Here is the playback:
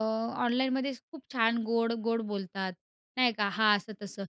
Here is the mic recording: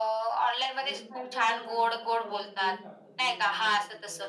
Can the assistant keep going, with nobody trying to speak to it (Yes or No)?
No